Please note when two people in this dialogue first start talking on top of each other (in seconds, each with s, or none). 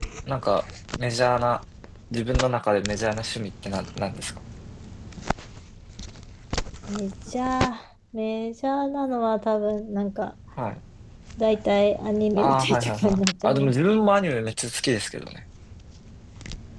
12.4 s